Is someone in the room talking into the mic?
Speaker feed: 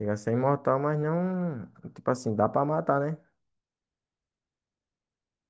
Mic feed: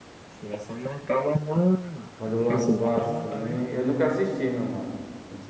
Yes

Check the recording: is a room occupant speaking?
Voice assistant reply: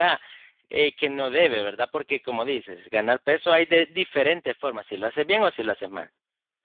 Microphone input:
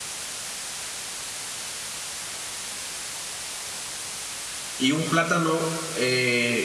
Yes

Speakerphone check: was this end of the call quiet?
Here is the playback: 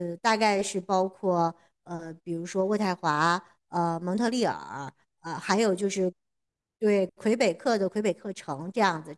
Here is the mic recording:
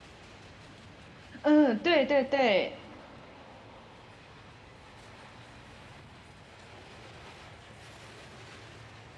No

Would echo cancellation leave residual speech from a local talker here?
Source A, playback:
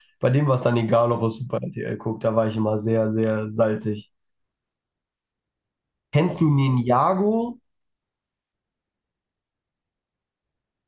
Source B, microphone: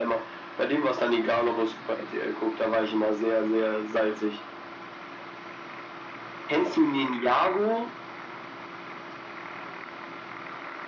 No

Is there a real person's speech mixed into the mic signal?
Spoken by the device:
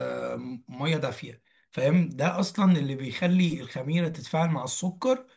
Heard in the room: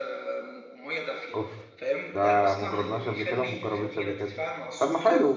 Yes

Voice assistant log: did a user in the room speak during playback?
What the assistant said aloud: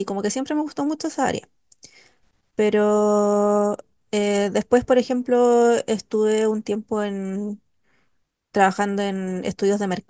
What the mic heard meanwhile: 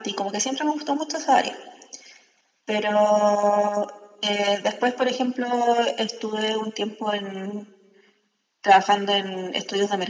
No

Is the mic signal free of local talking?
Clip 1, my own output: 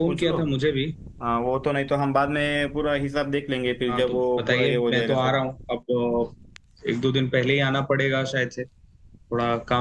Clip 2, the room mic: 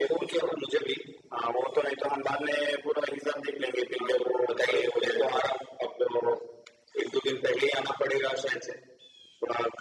Yes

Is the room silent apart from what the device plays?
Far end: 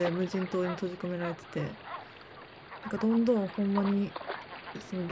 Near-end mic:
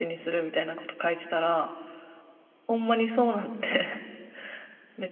No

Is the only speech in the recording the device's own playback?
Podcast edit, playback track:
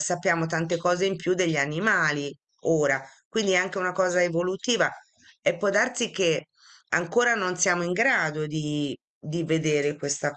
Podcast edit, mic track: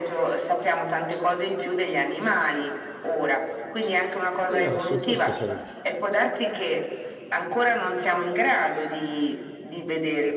No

